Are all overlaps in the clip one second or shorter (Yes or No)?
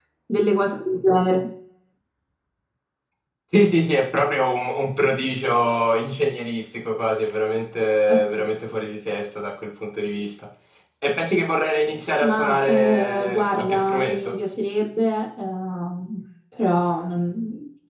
No